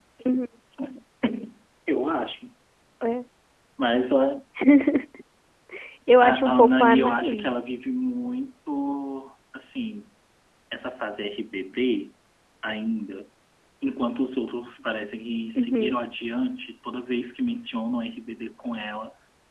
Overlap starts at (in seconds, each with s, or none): 6.2 s